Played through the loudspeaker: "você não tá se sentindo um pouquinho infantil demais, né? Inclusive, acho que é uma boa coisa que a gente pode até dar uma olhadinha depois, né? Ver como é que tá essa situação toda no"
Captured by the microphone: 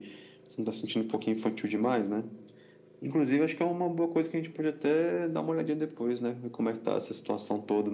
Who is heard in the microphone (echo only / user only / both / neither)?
echo only